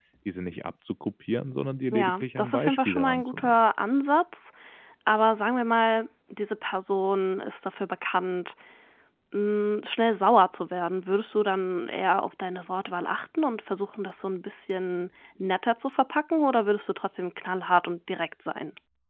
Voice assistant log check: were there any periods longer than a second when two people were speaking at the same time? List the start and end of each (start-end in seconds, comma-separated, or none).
1.9-3.5